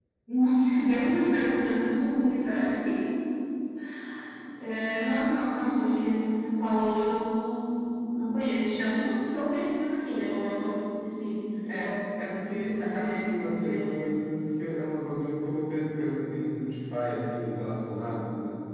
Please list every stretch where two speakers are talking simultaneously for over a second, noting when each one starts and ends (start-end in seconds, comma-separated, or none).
12.5-13.9